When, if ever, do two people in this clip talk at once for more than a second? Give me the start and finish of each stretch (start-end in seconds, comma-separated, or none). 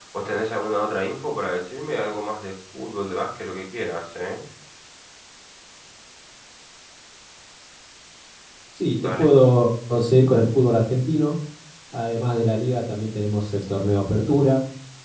none